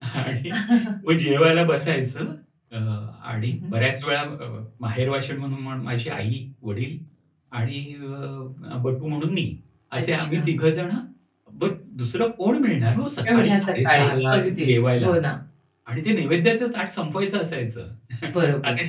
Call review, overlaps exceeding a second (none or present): present